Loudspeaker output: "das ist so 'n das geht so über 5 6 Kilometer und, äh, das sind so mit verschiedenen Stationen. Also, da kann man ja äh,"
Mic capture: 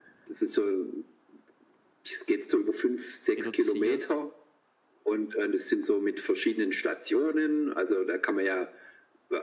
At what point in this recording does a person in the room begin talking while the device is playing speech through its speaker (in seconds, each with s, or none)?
3.4 s